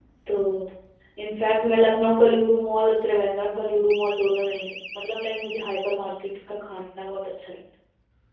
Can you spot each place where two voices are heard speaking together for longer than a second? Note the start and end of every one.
none

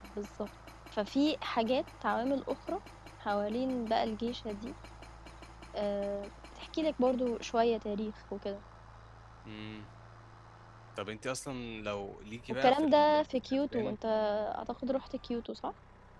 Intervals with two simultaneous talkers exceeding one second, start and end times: 12.6-14.0

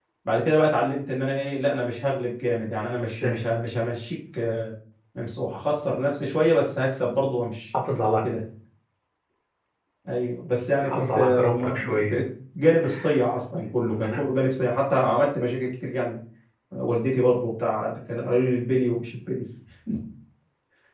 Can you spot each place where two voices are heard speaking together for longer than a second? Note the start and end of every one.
10.8-12.2

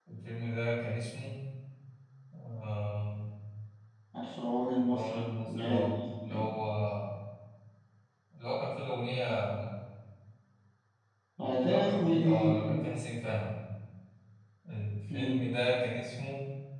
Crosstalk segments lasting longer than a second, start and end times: 4.8-6.5, 11.4-12.7

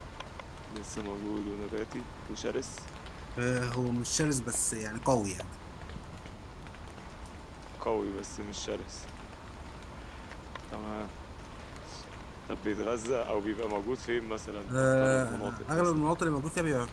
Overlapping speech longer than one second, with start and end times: 14.7-16.0

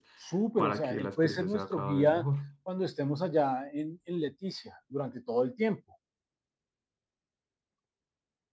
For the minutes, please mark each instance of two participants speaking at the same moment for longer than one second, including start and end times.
0.6-2.3

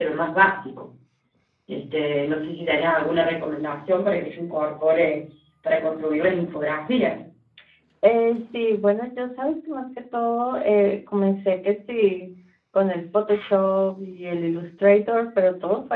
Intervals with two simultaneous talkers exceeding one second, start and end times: none

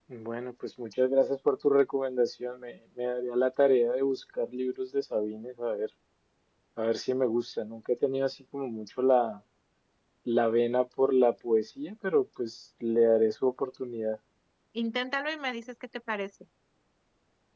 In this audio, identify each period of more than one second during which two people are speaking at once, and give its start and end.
none

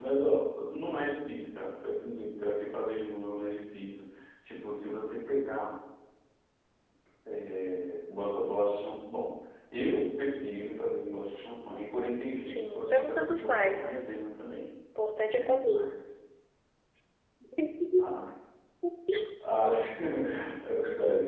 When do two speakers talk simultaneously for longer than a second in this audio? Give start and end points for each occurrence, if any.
12.5-13.9

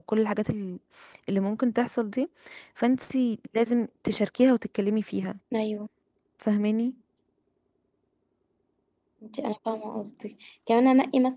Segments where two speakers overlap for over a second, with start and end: none

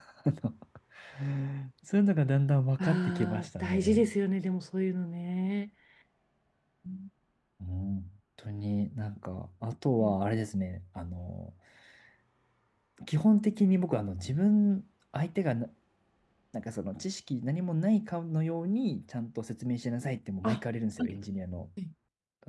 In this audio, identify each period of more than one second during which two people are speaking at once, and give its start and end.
2.8-4.1

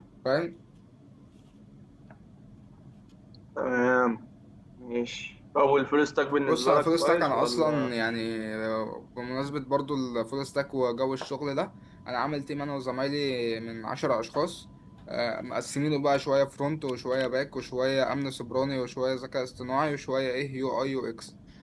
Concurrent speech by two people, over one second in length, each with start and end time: 6.5-7.9

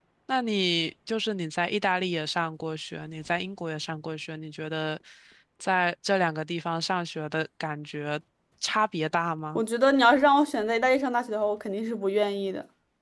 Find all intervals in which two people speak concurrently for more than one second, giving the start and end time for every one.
none

